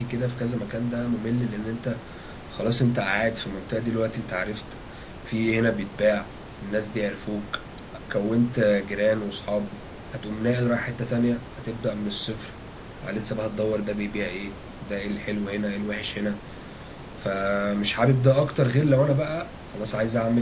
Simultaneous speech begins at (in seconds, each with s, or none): none